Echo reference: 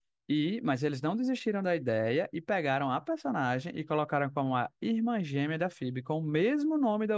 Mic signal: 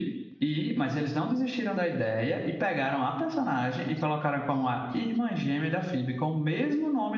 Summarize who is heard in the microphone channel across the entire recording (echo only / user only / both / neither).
echo only